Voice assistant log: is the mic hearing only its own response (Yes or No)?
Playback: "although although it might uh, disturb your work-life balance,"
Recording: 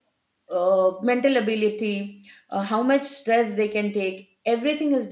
No